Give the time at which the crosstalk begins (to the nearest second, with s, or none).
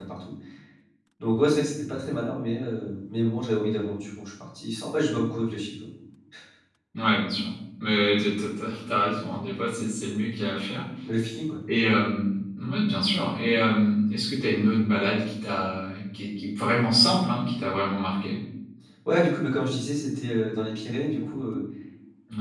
none